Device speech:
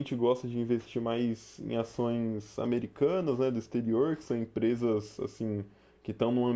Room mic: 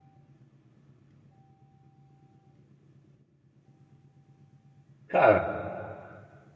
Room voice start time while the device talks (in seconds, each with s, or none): 5.1 s